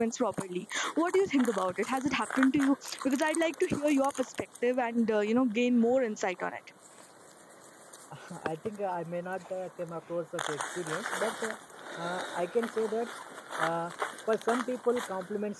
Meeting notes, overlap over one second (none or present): none